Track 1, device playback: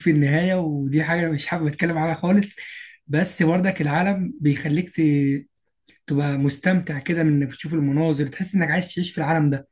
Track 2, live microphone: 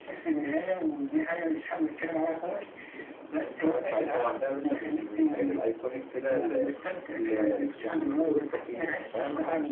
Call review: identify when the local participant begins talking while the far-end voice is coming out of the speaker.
3.4 s

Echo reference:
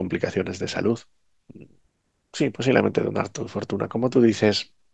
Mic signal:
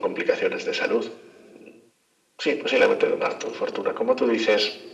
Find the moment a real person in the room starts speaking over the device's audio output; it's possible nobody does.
none

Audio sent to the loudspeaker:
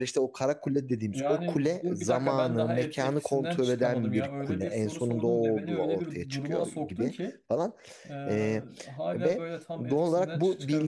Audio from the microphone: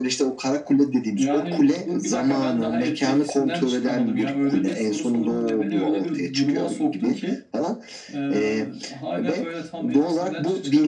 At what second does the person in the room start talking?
none

